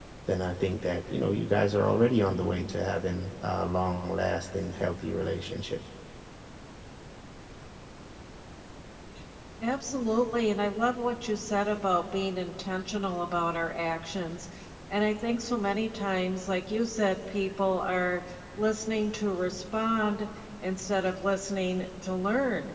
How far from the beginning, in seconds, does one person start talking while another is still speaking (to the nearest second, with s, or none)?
none